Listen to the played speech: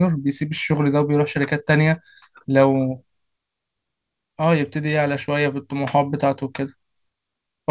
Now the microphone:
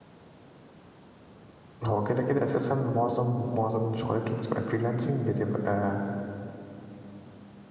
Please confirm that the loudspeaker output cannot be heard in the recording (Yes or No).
Yes